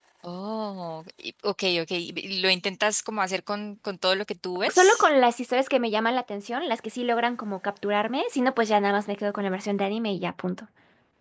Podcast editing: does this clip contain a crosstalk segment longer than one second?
No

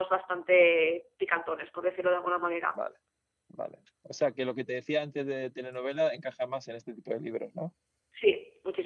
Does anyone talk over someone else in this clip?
No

